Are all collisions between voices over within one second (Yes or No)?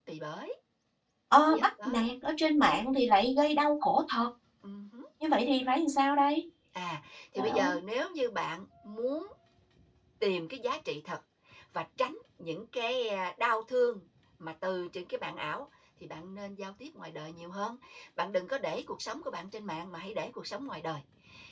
Yes